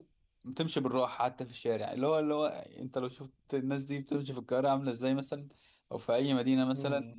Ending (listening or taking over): listening